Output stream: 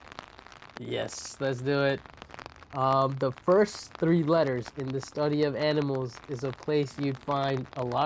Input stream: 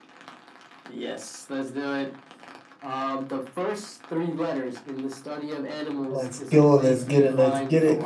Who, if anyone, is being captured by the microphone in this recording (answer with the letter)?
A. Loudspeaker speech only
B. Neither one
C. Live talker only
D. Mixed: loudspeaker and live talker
D